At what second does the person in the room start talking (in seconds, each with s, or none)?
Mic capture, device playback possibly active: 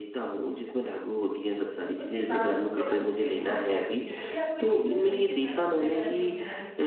2.0 s